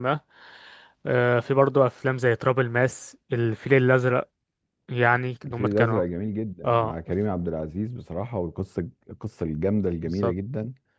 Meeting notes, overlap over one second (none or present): none